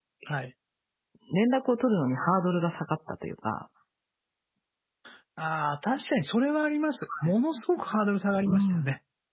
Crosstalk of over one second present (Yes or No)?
No